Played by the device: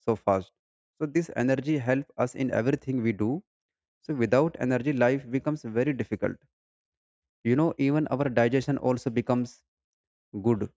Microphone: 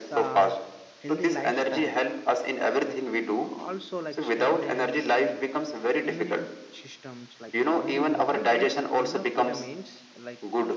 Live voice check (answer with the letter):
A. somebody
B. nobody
A